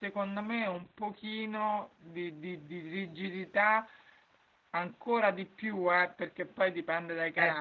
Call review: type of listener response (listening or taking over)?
listening